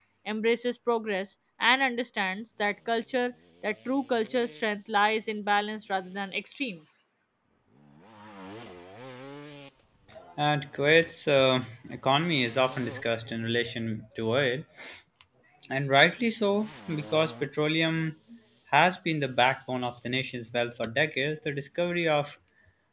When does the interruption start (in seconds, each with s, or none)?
none